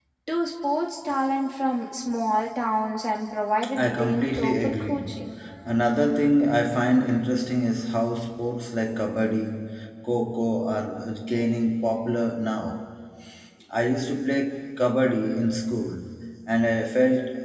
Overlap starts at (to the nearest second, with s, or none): 4 s